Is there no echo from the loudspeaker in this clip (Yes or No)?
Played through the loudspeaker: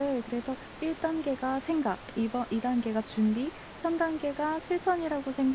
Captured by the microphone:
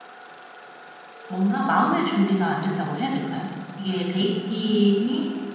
Yes